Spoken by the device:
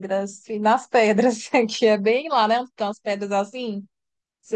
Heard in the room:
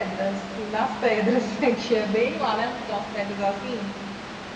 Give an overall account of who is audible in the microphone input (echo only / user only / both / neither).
echo only